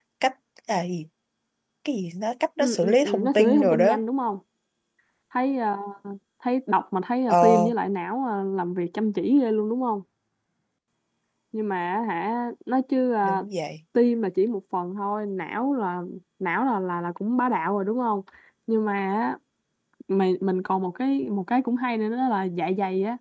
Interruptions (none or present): present